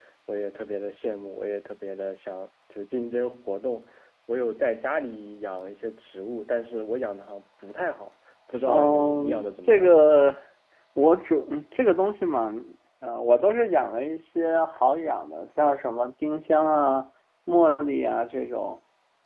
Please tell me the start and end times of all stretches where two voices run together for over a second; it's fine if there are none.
8.7-9.9

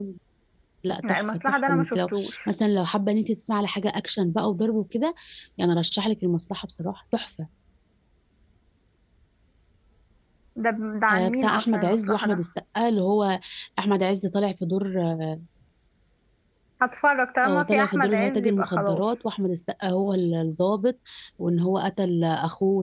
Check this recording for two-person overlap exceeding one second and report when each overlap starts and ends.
1.1-2.4, 11.1-12.4, 17.4-19.0

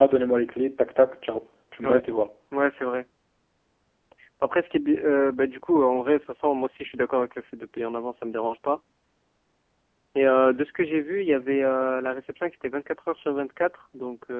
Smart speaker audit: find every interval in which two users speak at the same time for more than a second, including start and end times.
none

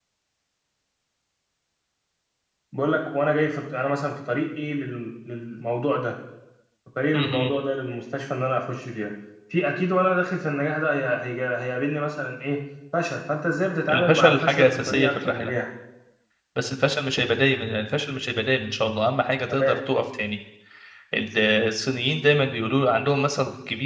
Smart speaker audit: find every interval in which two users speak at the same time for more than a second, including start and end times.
13.9-15.5

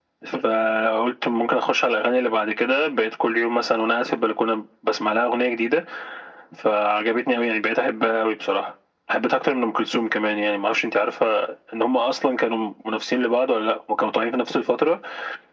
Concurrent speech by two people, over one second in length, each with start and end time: none

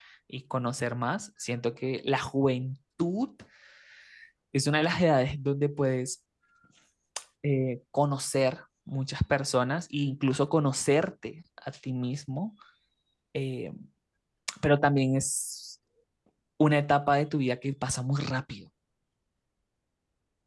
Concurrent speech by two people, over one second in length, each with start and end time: none

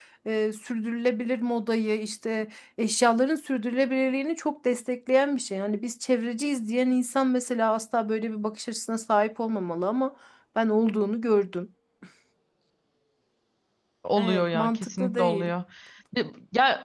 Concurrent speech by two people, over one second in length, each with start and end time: 14.1-15.5

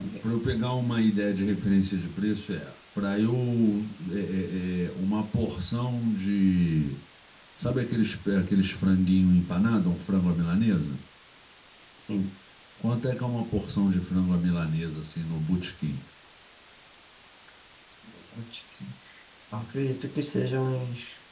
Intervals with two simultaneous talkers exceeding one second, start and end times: none

